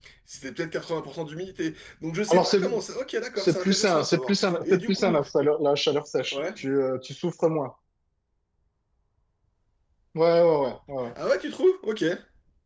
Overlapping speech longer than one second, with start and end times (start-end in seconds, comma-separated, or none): 3.4-5.2